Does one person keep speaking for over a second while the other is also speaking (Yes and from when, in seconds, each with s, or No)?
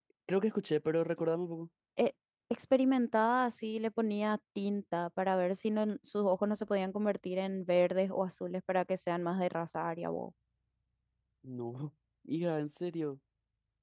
No